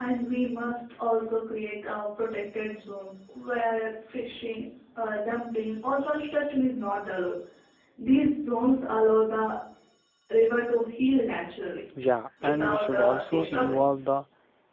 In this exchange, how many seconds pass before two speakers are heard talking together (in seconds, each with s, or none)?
12.4 s